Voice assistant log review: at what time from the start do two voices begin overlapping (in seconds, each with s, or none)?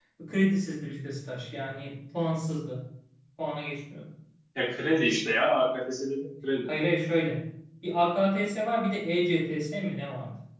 none